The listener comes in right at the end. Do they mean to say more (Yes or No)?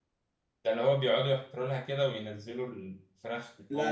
Yes